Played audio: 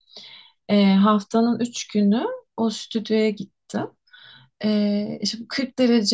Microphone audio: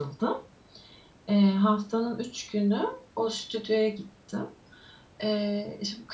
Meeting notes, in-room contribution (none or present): none